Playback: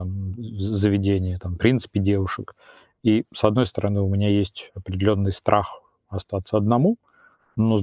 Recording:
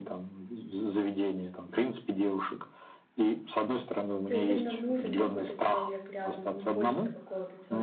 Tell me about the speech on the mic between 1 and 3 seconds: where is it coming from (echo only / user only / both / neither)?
echo only